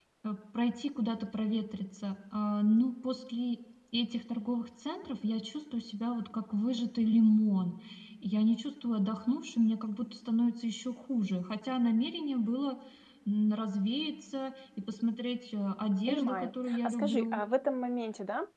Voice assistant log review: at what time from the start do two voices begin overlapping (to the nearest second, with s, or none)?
16 s